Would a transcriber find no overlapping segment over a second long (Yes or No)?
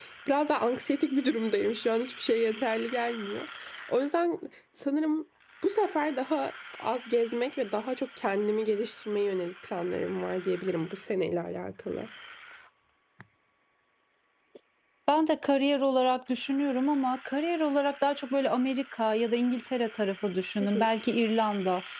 Yes